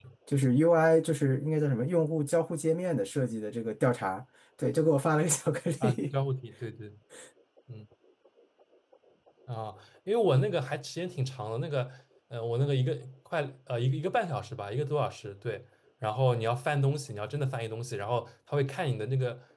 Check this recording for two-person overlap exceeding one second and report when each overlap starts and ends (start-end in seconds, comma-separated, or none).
none